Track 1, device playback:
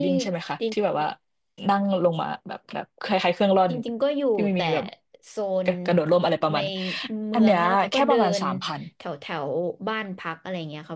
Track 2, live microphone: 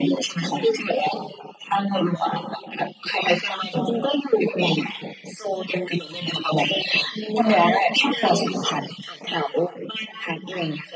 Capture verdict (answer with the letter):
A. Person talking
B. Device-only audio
B